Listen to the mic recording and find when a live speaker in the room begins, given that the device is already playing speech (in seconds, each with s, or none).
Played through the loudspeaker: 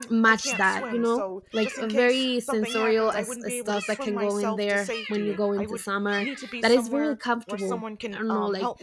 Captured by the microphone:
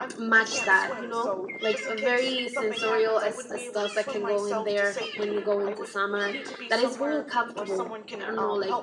none